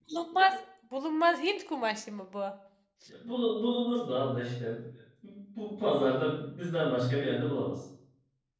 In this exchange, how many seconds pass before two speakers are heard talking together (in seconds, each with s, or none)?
none